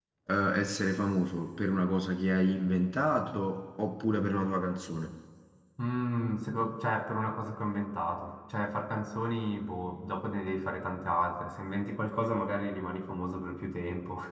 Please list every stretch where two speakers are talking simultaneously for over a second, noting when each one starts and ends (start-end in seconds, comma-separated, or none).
none